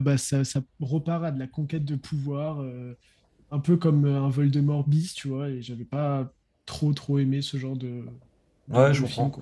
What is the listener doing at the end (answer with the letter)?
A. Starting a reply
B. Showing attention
A